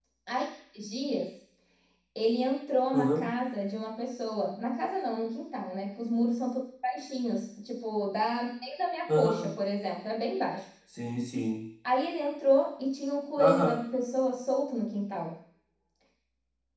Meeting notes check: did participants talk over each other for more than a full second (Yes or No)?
No